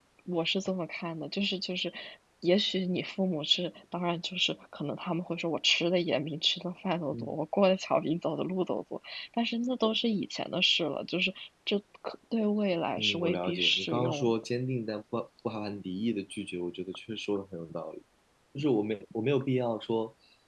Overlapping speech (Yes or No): Yes